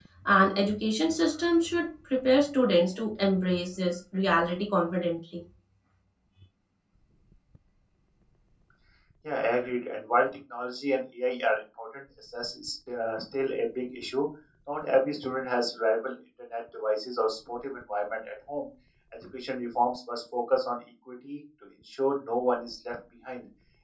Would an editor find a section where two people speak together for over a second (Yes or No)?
No